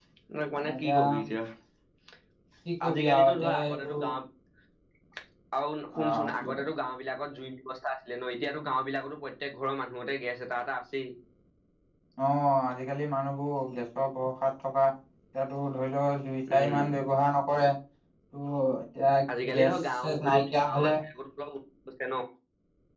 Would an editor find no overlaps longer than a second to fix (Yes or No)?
No